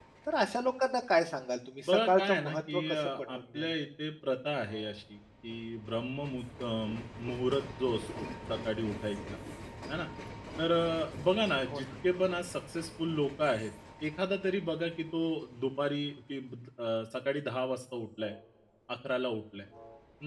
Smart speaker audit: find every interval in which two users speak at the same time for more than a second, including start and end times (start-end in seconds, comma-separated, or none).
1.9-3.7